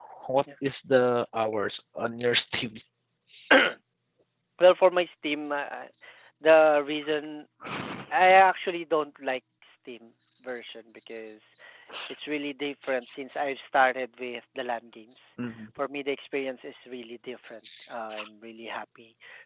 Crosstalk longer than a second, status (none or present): none